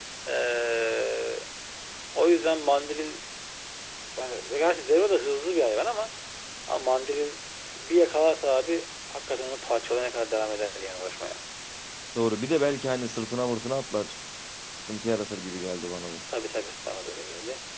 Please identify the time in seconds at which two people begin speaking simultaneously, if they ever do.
none

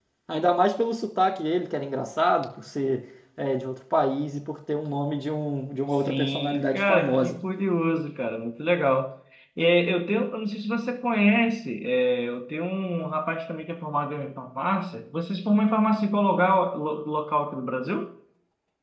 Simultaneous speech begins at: 6.1 s

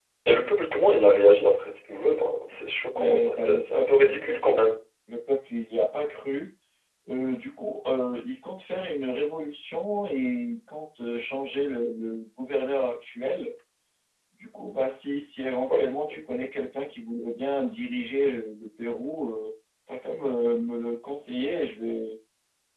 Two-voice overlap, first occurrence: 2.9 s

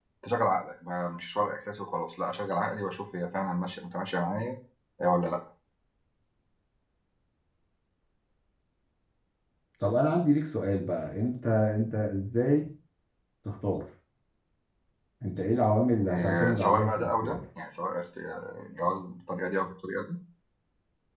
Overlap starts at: 16.1 s

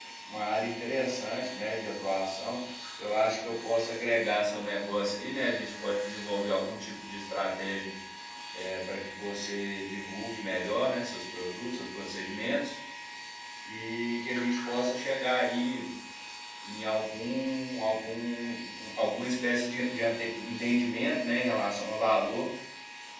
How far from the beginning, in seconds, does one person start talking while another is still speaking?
none

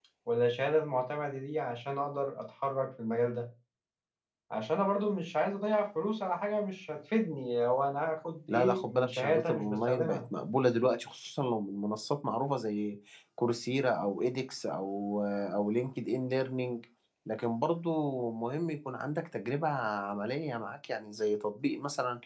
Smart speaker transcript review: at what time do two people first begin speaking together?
8.5 s

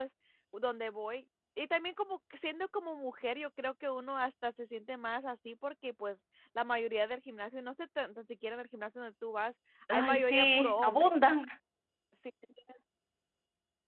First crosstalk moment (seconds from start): 9.9 s

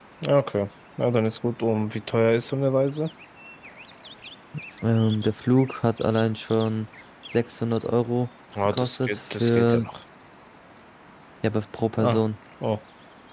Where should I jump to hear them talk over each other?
8.6 s

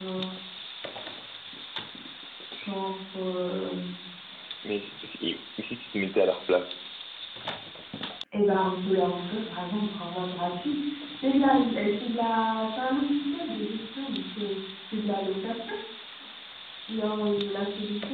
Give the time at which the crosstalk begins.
none

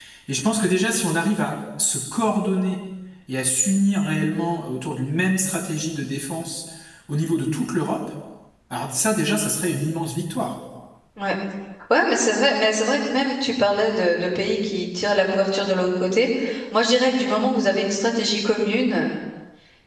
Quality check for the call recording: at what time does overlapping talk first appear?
none

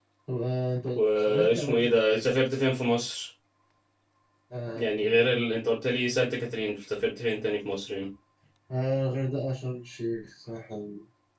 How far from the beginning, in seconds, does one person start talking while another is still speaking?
0.9 s

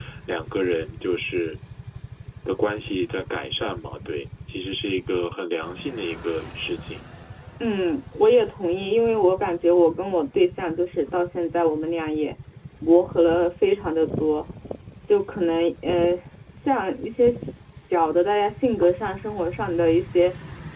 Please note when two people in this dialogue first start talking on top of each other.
none

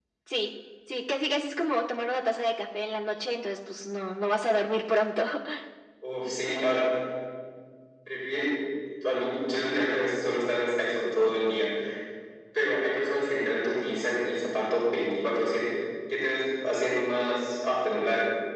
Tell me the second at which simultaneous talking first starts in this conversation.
none

